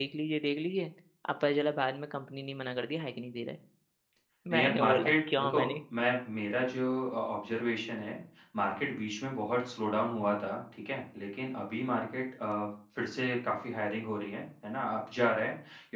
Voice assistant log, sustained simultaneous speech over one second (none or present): present